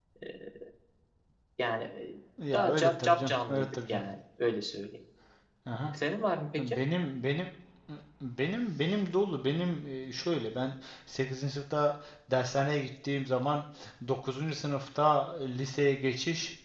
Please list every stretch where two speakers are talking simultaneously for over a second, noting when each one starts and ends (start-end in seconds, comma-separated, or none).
2.5-4.0